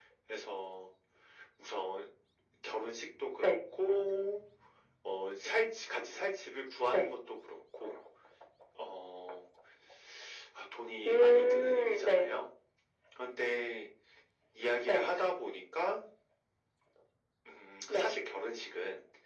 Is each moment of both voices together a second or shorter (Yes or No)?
No